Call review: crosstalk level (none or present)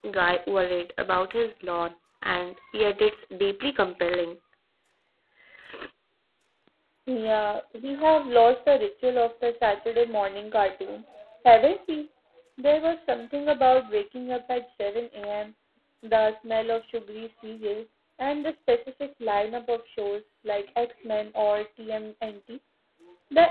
none